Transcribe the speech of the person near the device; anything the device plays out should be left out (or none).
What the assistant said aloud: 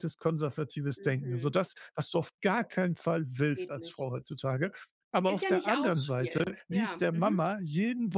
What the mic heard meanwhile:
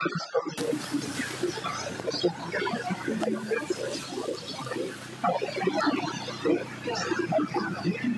Mhm.